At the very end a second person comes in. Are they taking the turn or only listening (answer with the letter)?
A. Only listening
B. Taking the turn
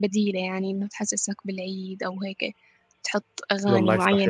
A